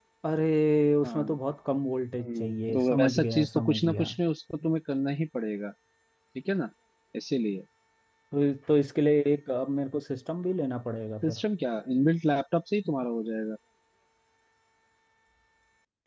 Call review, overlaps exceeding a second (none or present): present